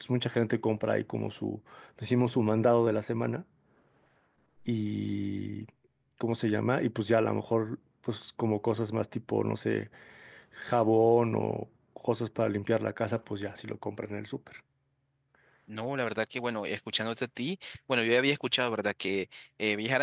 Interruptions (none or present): none